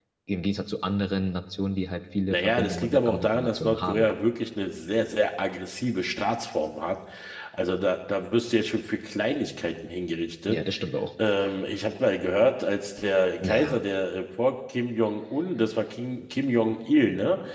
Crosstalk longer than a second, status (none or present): present